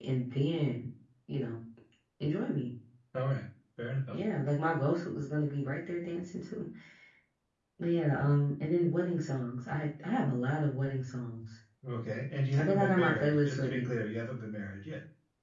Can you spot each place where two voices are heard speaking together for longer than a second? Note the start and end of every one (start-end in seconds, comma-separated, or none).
12.6-13.9